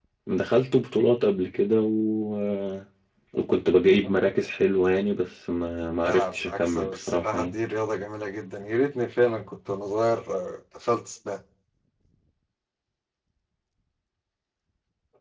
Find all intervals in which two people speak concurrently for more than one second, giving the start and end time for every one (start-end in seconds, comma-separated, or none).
6.0-7.5